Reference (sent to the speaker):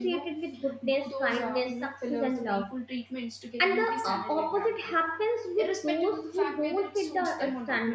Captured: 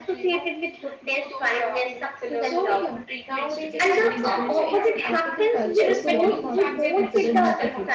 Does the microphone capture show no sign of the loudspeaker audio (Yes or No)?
No